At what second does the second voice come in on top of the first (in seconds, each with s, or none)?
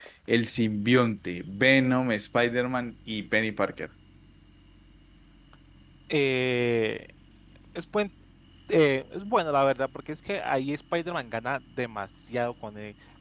none